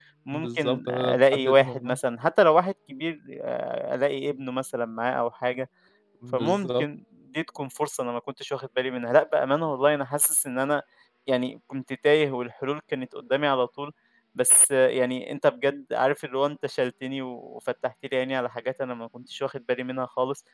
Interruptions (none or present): present